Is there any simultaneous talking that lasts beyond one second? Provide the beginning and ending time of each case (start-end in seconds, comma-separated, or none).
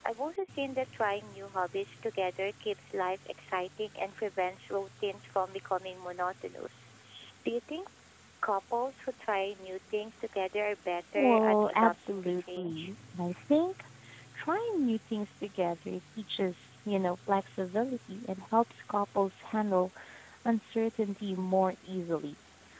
11.2-12.9